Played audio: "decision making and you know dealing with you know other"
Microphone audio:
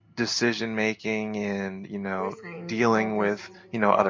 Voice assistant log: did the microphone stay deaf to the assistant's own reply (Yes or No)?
No